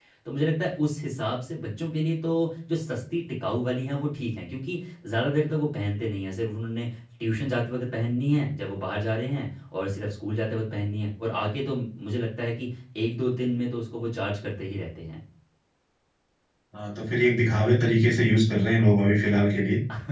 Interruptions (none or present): none